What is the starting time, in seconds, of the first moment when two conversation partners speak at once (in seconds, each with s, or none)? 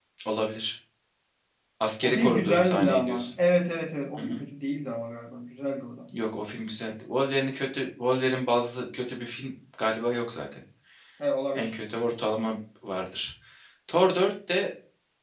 2.0 s